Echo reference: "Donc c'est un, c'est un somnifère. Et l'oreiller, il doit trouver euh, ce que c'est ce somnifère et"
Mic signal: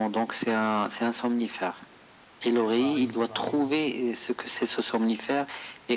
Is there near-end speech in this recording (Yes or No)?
Yes